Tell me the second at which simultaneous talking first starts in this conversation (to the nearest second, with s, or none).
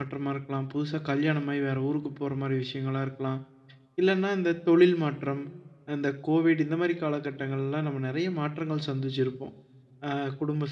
none